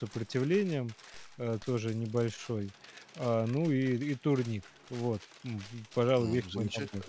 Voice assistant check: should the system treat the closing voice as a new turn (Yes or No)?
Yes